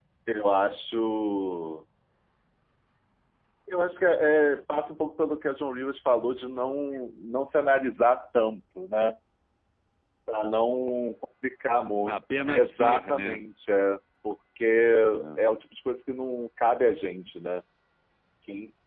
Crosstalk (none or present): present